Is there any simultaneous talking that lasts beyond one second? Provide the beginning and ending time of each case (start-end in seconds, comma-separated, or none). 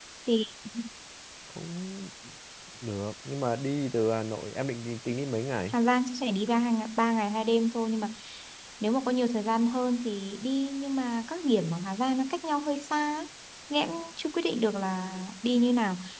none